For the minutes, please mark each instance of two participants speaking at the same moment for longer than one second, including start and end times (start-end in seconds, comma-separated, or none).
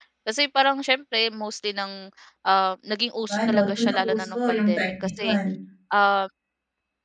3.5-5.4